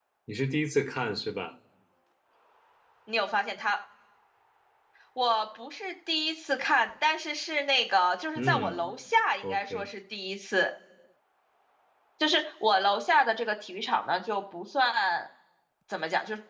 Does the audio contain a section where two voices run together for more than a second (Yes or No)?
No